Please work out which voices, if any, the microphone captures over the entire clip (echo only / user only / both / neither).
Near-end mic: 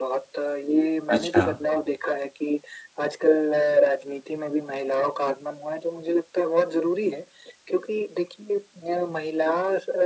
both